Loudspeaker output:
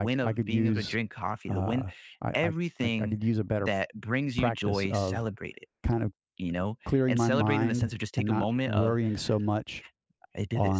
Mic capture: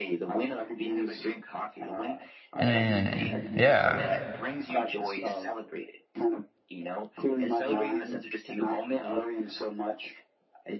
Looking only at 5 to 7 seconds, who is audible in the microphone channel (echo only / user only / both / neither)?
echo only